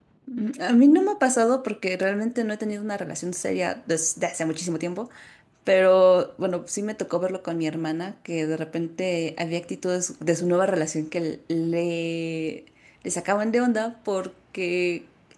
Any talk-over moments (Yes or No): No